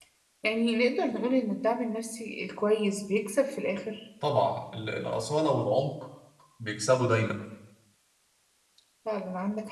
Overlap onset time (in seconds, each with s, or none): none